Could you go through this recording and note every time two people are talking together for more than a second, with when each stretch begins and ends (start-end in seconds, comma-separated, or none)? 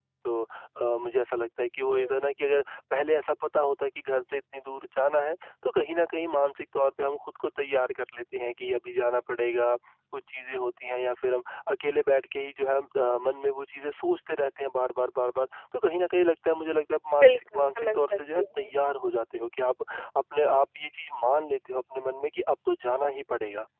17.2-18.7